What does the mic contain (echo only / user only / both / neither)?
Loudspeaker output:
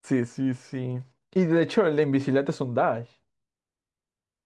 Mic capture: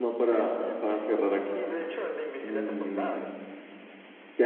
both